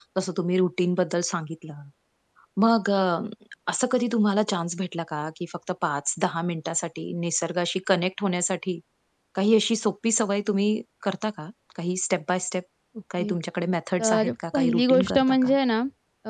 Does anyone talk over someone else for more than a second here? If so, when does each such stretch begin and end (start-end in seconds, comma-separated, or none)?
14.0-15.5